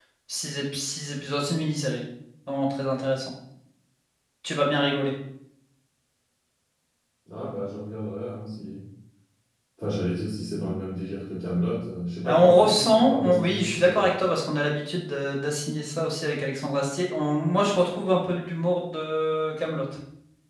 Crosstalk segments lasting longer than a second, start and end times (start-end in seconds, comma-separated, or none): 12.3-14.1